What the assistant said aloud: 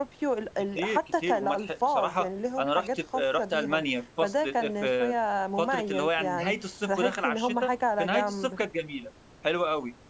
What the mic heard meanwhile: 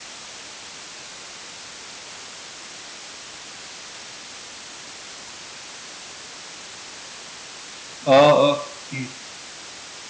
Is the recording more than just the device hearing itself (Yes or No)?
Yes